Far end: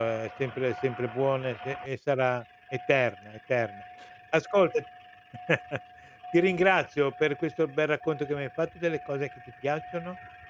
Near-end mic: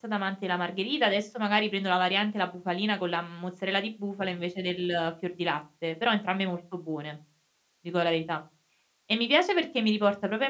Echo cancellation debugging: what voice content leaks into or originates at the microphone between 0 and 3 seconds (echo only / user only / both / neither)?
user only